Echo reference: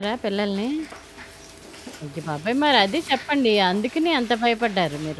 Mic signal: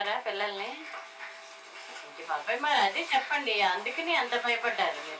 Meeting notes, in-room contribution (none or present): none